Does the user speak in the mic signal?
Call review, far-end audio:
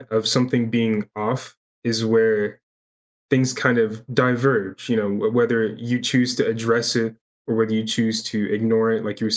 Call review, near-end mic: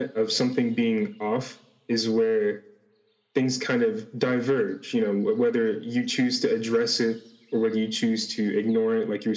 No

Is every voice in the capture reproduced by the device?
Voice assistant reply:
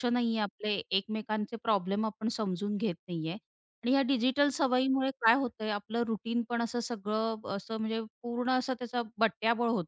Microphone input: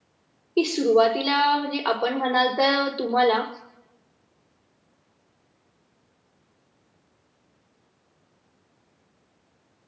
No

